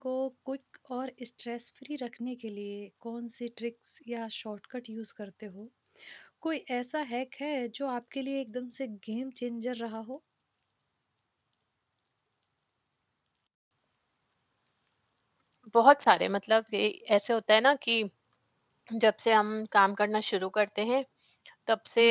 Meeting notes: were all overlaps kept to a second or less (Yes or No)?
Yes